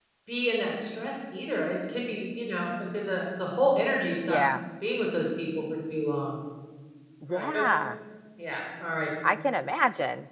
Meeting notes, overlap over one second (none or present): none